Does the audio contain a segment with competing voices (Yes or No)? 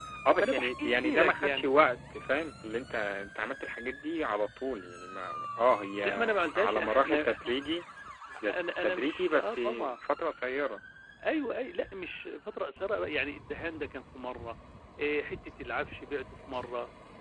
Yes